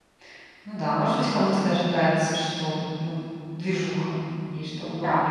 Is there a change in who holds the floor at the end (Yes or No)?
Yes